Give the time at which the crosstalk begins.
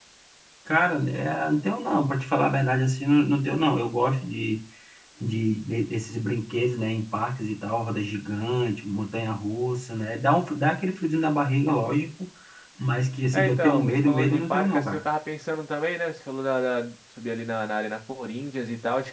13.3 s

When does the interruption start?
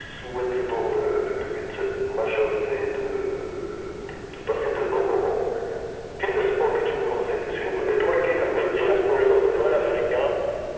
8.4 s

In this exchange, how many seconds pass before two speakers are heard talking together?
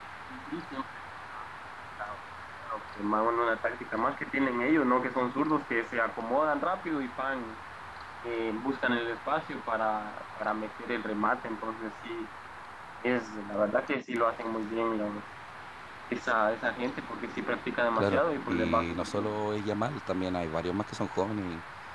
18.0 s

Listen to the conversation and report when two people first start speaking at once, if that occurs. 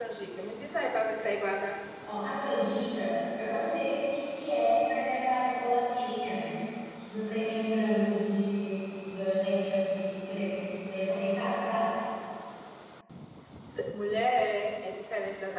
none

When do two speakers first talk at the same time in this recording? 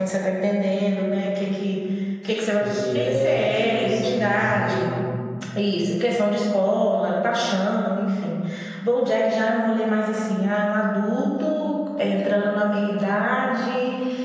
2.6 s

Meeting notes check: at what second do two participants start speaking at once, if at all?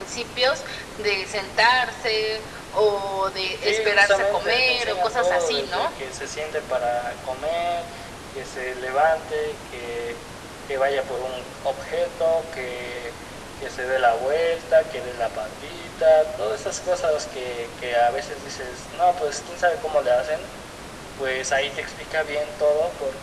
3.6 s

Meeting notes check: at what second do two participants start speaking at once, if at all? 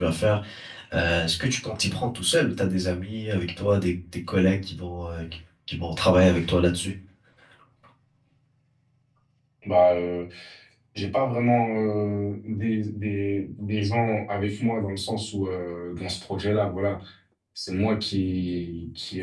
none

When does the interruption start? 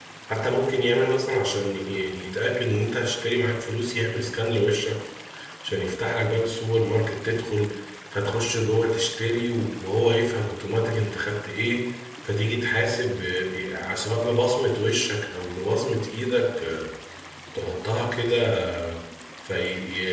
none

